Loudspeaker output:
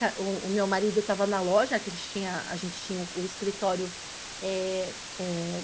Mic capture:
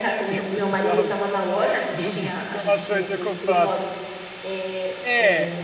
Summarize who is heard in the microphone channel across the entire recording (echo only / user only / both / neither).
both